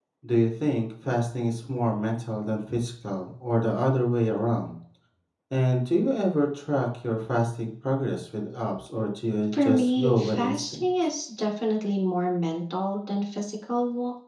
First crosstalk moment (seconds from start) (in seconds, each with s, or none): 9.5 s